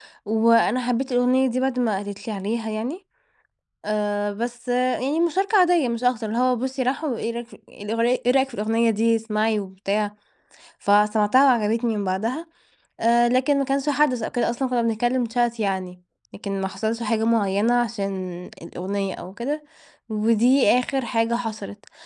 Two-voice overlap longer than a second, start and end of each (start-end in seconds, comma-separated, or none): none